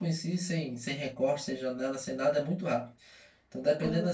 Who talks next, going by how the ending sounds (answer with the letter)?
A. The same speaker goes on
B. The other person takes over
A